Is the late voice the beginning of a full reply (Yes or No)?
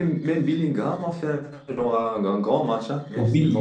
Yes